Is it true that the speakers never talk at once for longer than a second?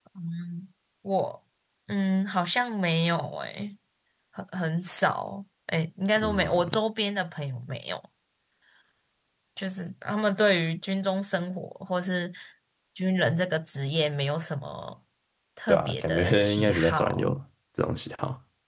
No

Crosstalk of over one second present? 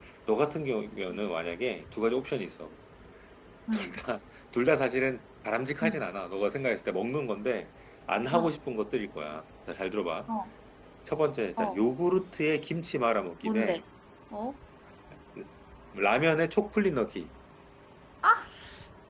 No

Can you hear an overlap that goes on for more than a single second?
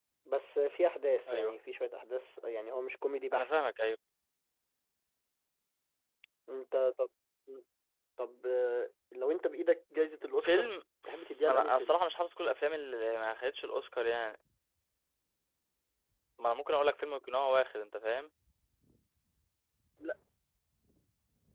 No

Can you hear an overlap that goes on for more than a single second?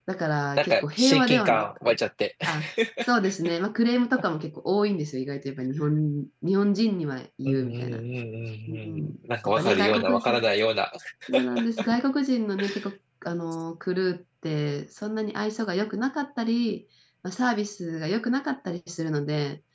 Yes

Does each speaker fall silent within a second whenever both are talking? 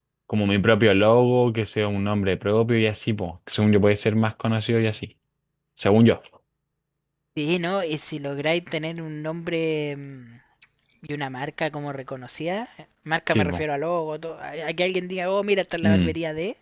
Yes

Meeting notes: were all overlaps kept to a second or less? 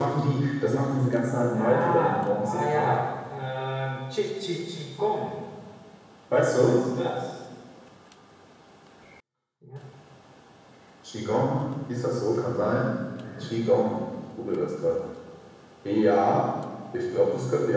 No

